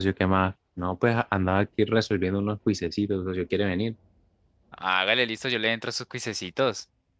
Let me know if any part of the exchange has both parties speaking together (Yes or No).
No